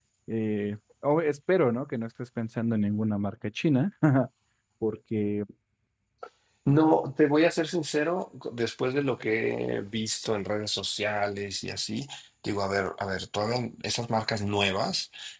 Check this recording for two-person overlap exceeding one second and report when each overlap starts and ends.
none

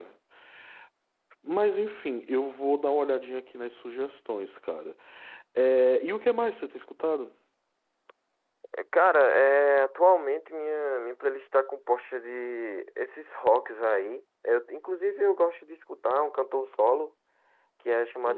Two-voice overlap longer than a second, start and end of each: none

